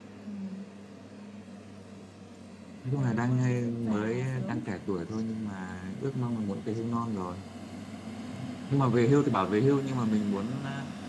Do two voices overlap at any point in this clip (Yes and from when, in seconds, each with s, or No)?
Yes, from 3.0 s